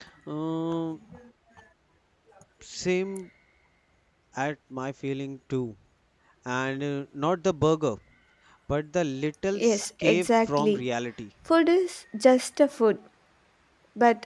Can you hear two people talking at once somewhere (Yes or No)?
Yes